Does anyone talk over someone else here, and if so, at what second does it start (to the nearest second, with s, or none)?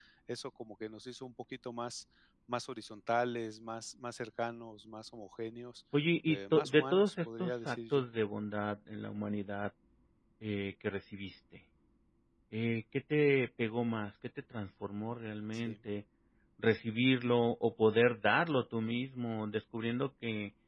6 s